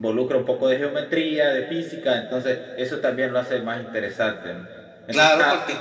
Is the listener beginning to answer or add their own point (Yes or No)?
Yes